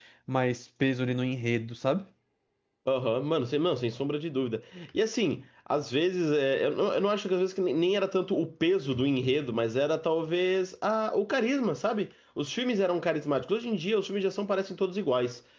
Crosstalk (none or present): none